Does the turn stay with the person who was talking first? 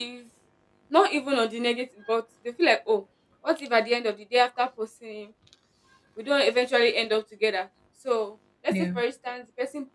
Yes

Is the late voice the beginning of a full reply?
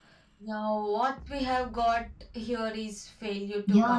Yes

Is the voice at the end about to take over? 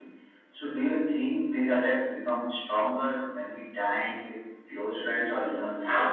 Yes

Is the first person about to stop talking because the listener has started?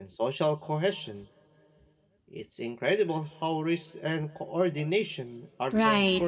Yes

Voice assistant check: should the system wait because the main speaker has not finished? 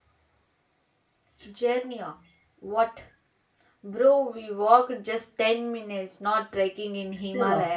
No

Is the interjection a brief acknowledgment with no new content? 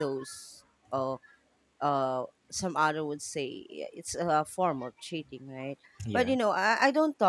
Yes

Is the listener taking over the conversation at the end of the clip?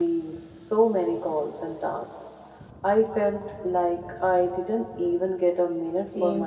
Yes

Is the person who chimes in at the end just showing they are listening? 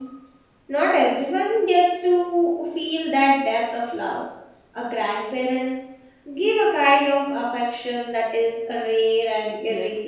No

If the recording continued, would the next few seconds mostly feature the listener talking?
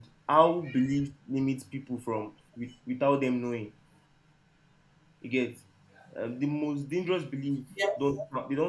No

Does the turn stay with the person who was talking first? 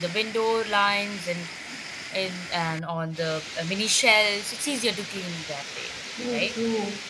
No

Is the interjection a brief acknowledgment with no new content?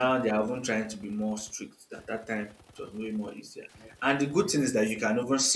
Yes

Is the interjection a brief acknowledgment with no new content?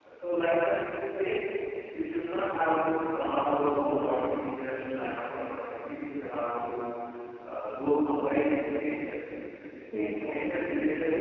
Yes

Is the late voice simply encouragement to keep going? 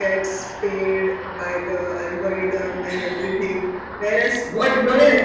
No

